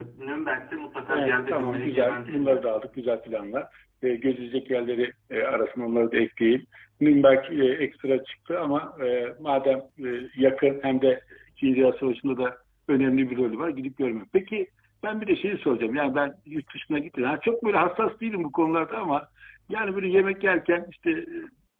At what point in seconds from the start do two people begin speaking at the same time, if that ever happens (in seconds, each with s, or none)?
1.1 s